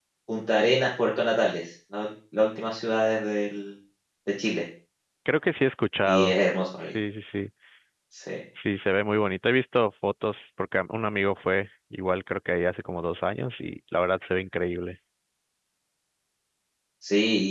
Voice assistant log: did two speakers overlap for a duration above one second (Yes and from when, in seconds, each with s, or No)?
No